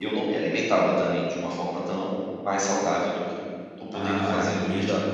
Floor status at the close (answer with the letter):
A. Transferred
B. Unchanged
A